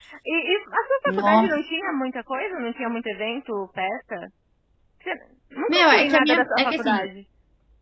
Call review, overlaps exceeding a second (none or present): present